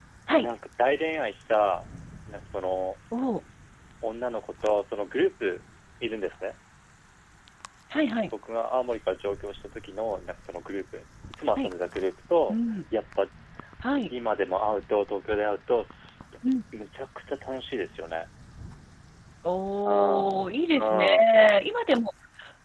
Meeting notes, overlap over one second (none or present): none